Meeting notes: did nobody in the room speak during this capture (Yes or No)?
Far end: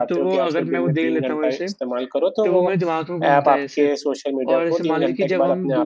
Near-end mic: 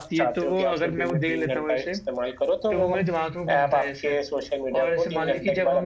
Yes